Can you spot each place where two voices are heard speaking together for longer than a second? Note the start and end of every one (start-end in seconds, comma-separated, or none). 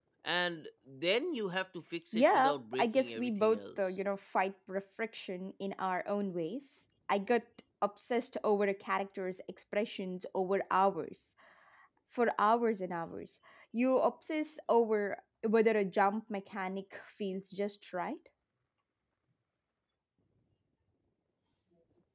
2.1-4.0